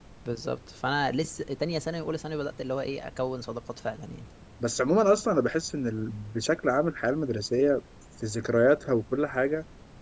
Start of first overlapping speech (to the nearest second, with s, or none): none